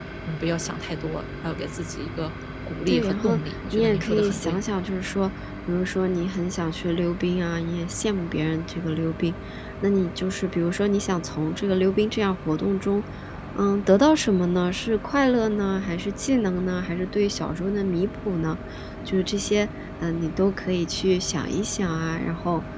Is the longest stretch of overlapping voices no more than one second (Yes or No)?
No